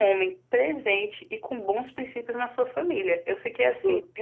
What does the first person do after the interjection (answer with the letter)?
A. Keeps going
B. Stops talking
A